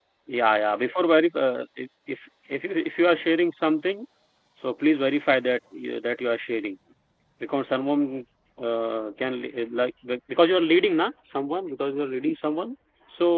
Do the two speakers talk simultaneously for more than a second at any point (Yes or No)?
No